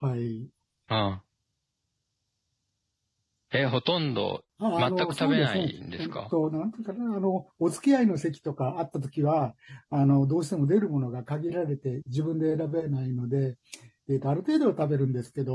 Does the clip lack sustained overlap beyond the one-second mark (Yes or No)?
No